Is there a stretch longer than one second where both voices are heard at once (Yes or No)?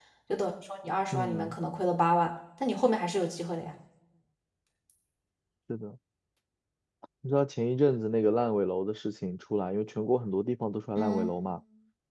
No